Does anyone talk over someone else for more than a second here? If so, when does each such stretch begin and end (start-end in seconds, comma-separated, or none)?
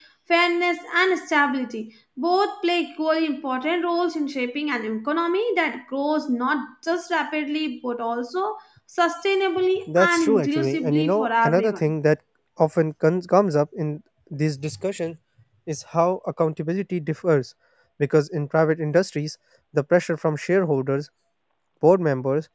10.0-11.7